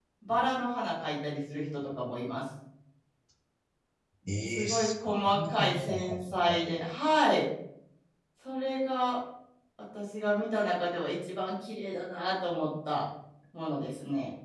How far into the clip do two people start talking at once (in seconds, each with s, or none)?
4.5 s